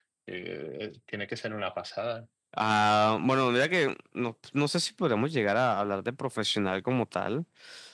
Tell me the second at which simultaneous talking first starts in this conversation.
none

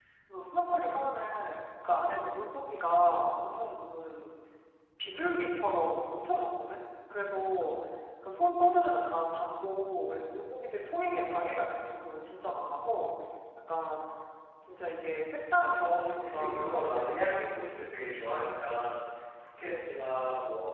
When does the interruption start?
15.8 s

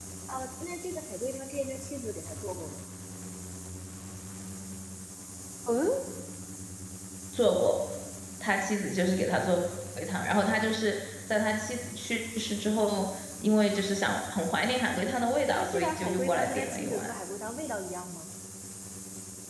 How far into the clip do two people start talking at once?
15.6 s

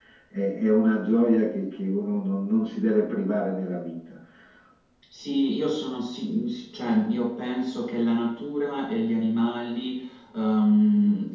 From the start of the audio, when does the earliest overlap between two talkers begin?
none

